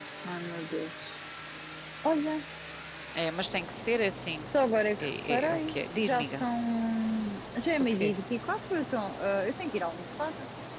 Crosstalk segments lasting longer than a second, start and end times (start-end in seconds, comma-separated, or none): 5.0-6.4